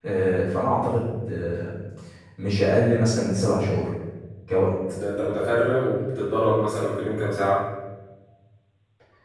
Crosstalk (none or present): none